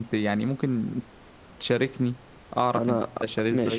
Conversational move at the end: taking over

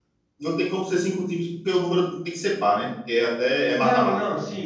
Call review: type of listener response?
taking over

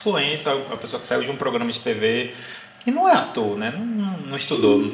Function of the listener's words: listening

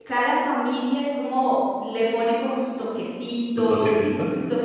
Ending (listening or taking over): listening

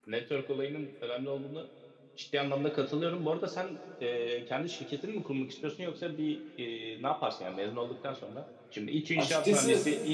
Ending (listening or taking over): listening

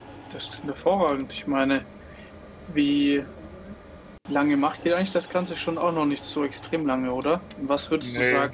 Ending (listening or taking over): listening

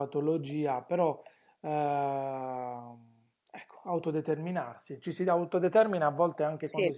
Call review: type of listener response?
listening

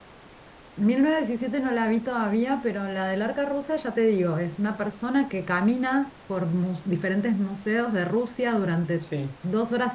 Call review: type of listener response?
listening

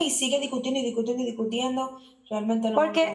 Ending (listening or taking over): taking over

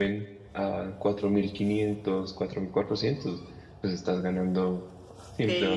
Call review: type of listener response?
taking over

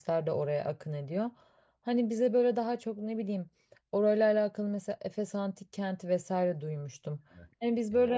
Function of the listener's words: listening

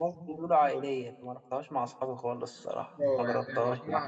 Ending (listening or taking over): taking over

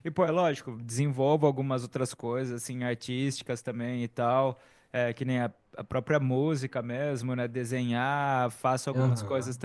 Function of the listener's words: listening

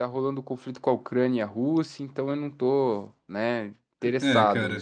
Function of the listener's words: taking over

